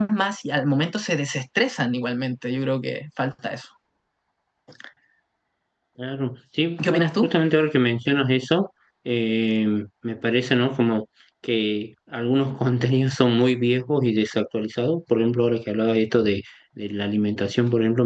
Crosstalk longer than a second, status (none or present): none